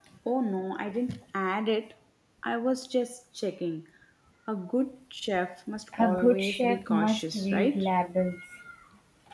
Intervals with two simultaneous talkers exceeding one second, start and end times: 6.0-7.8

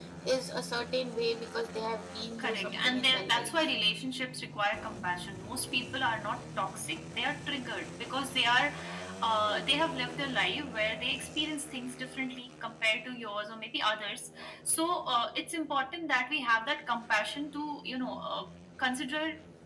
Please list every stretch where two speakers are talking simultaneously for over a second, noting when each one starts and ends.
2.4-3.7

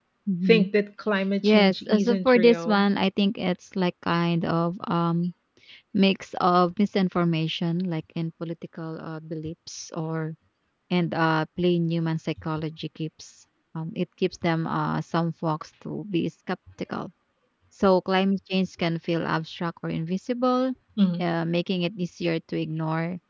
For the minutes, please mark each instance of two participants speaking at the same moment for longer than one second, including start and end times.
1.4-2.9

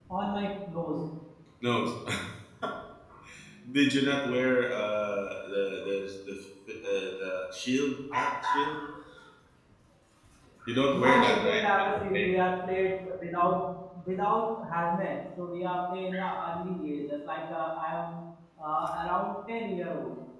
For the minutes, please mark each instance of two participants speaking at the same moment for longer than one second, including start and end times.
10.9-12.3

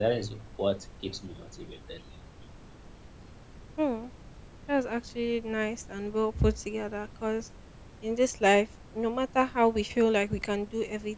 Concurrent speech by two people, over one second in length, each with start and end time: none

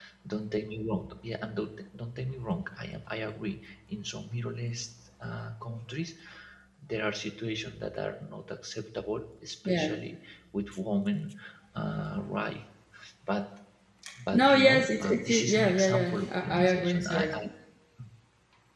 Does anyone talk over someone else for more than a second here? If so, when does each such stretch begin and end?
14.3-17.3

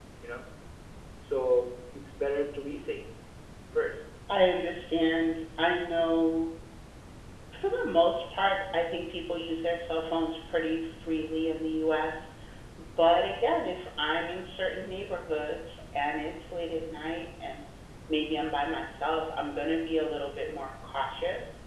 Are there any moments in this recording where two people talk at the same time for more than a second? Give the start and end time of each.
none

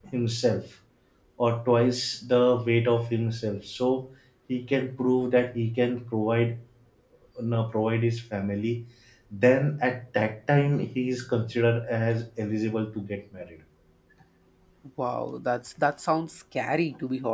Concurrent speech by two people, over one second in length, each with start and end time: none

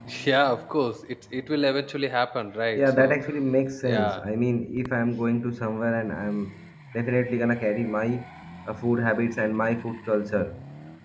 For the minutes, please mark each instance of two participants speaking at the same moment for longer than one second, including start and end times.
none

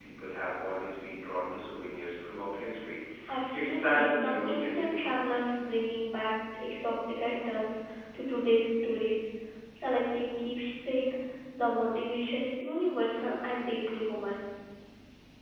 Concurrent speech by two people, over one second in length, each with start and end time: 3.5-5.1

